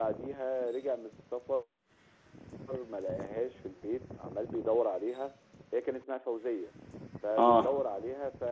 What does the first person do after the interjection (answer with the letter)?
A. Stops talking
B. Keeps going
B